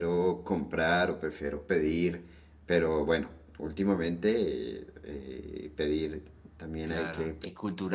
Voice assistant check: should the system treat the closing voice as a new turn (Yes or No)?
Yes